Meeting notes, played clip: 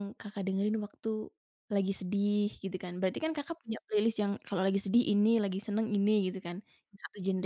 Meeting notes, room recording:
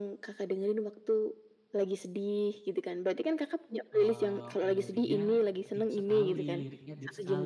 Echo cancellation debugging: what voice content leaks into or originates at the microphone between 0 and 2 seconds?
echo only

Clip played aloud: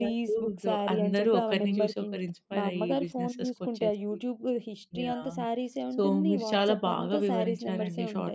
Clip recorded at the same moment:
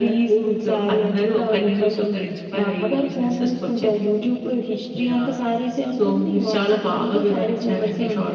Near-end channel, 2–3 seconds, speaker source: echo only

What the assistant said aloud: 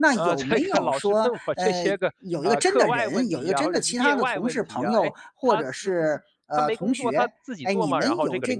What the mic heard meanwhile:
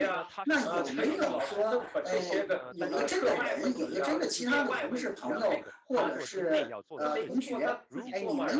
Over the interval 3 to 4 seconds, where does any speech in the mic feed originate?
both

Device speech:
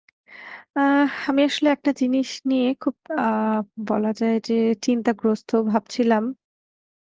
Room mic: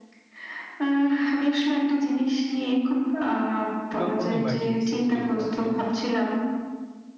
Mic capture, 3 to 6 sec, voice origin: both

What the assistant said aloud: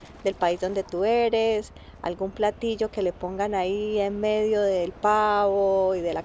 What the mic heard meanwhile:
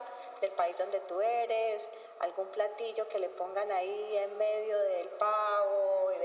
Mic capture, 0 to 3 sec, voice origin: echo only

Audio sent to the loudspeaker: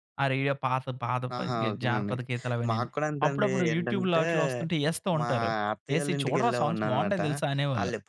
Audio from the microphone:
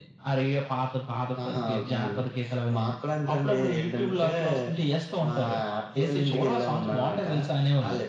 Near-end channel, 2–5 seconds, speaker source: echo only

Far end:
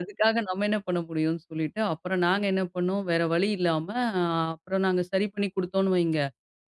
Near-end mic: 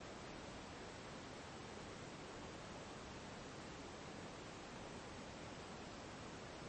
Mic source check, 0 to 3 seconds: neither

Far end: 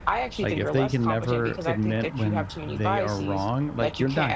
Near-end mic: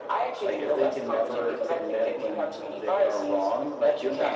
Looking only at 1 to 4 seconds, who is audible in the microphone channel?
echo only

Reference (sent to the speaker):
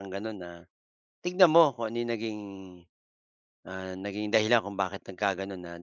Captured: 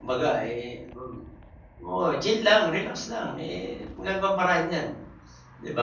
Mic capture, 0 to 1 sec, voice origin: user only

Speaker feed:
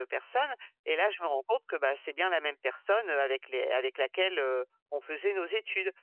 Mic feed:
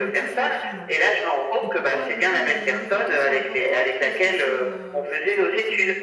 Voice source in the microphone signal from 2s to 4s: both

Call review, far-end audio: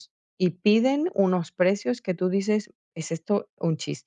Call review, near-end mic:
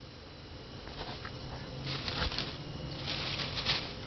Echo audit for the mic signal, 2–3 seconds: neither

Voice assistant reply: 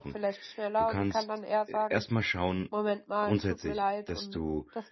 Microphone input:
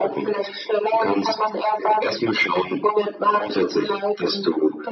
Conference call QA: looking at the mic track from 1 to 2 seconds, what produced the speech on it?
echo only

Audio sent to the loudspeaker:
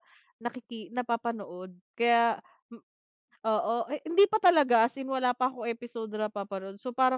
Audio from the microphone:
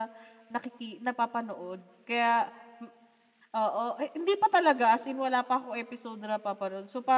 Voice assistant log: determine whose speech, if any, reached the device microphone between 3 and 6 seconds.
echo only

